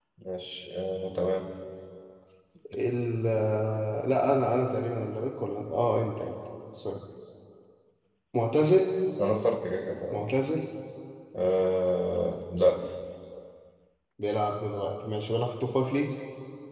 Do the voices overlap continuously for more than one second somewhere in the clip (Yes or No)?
No